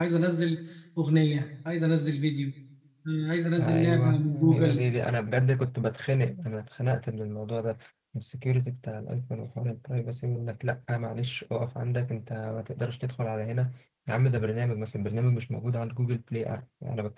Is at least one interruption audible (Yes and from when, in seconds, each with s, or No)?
Yes, from 3.6 s